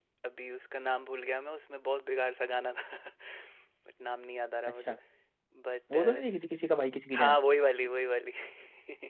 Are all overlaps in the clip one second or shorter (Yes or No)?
Yes